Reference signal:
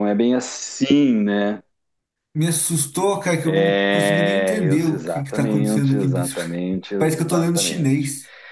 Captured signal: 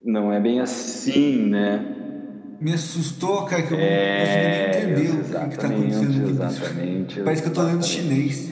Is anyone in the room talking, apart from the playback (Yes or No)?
No